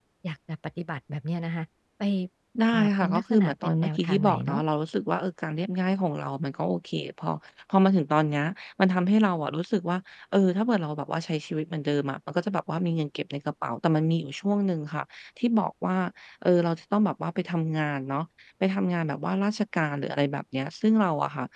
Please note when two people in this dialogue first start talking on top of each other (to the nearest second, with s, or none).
3 s